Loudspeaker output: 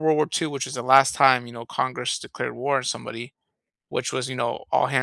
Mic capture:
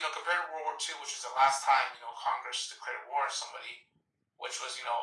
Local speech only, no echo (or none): none